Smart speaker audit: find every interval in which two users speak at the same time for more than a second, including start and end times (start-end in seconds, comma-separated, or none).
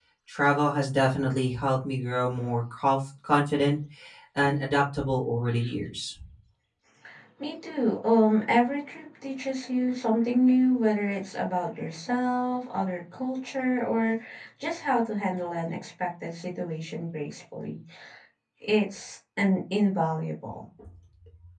none